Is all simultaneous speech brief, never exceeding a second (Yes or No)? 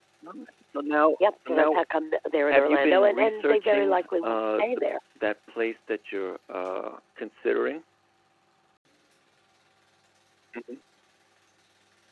No